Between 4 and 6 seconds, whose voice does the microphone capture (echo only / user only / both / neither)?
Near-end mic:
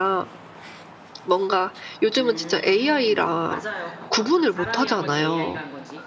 both